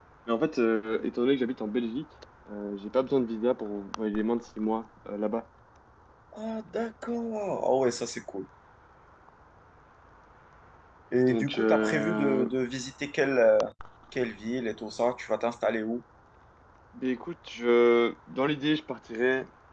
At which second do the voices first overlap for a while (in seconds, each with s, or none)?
11.3 s